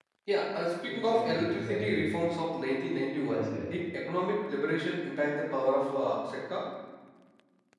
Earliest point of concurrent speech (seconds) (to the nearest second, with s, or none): 1 s